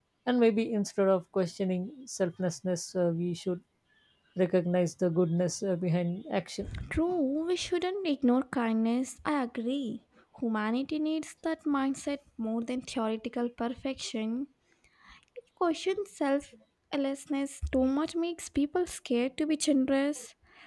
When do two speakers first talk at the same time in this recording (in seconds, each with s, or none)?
none